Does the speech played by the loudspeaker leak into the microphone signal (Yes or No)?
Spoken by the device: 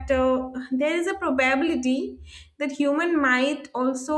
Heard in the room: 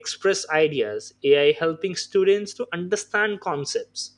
No